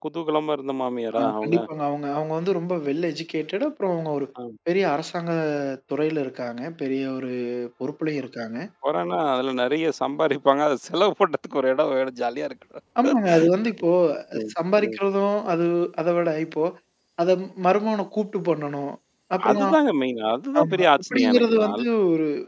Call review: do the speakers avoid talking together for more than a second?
No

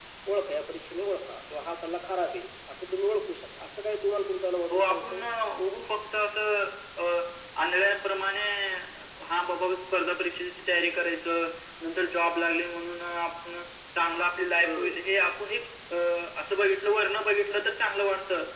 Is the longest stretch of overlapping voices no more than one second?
Yes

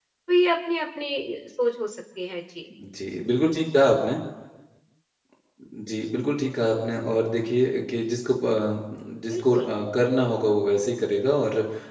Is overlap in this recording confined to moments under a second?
Yes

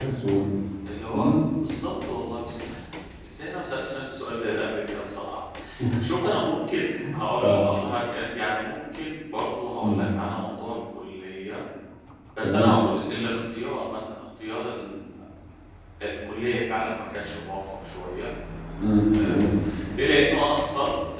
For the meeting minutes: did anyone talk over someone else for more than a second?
No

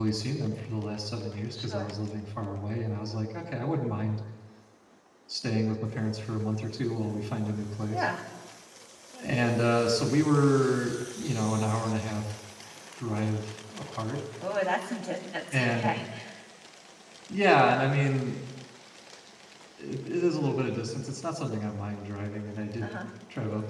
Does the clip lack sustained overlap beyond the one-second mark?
Yes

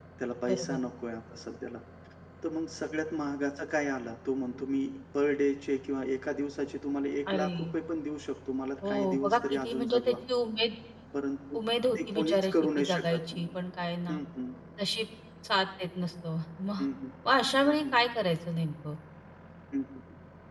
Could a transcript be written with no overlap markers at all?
No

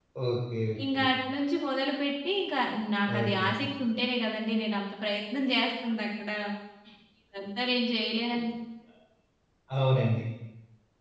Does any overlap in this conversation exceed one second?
No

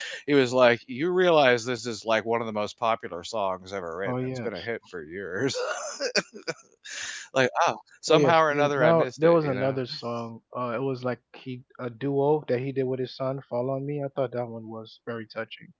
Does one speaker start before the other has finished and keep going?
Yes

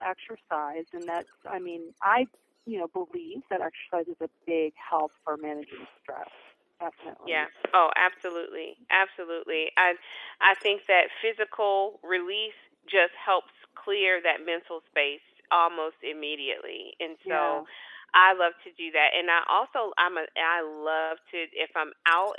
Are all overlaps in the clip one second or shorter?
Yes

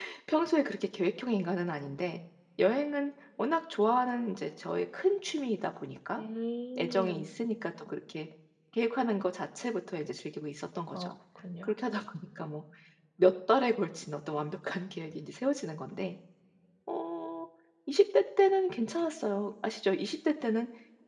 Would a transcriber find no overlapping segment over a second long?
Yes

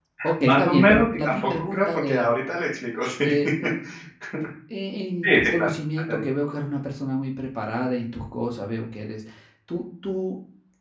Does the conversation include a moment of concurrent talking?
Yes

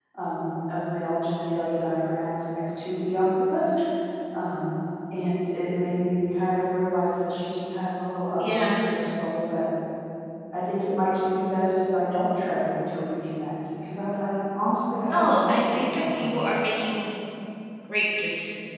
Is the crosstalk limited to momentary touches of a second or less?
No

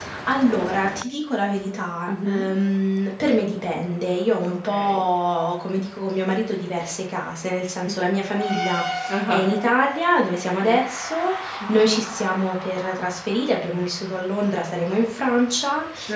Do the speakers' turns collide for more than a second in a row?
No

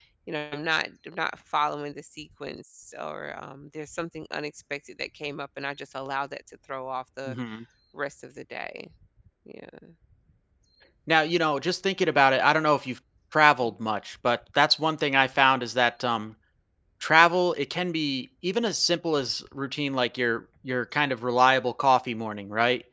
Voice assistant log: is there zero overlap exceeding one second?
Yes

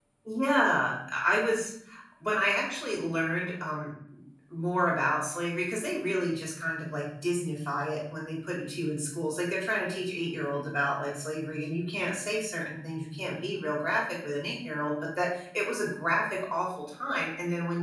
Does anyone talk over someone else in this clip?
No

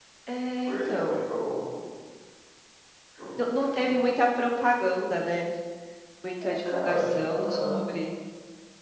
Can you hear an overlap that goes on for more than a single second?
Yes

